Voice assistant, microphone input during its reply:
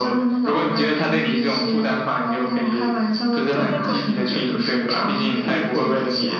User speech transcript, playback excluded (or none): 就那种